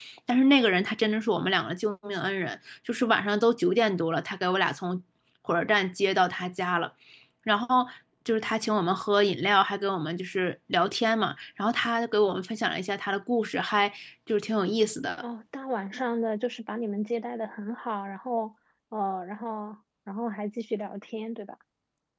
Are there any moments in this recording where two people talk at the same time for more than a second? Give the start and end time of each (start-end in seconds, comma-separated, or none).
none